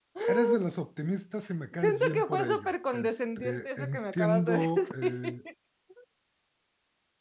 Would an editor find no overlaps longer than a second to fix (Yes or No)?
No